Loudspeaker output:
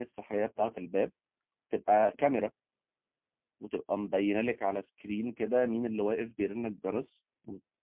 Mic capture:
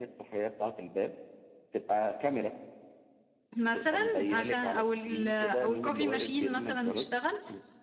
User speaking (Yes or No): Yes